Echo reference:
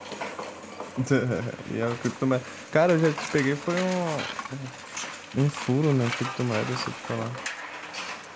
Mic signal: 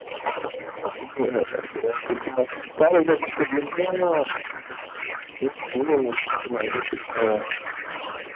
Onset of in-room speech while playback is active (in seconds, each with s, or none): 7.2 s